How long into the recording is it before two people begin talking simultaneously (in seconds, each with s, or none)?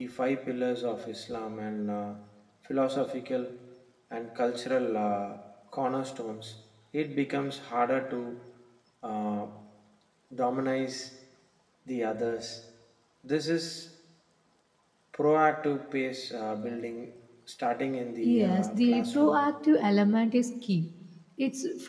18.2 s